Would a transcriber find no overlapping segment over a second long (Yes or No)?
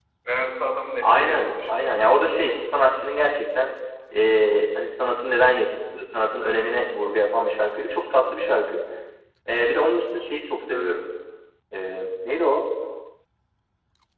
No